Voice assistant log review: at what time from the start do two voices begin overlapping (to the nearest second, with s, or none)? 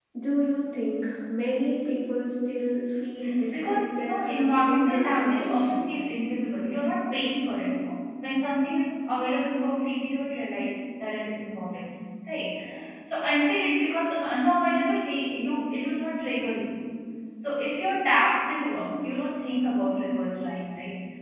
4 s